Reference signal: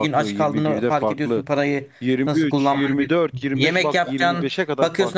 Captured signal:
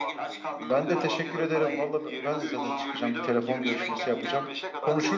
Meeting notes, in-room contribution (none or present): present